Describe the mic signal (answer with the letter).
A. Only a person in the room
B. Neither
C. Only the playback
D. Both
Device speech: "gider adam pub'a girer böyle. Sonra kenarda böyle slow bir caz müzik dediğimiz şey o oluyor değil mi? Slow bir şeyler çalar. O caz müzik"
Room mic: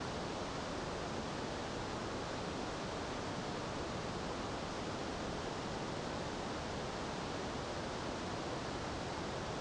B